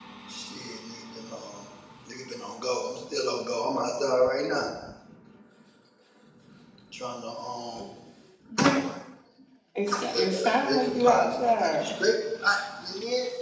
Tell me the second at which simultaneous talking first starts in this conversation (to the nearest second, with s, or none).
10 s